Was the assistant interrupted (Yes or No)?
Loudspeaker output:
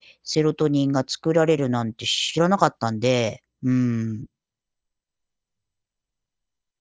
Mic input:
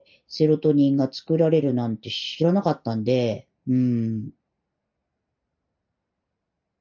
No